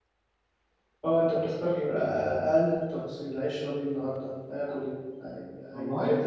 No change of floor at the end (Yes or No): Yes